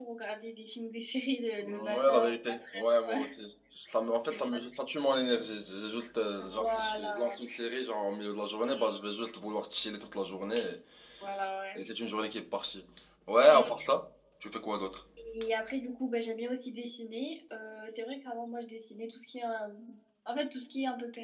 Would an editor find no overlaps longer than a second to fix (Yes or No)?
No